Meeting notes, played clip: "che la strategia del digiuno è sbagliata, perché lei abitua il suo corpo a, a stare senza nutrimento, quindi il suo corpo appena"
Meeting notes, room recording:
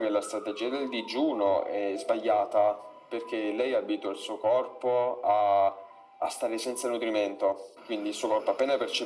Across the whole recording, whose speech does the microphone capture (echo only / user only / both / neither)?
echo only